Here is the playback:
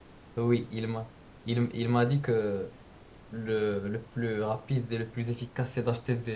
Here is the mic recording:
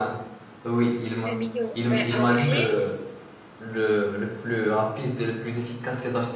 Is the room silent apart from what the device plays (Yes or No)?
No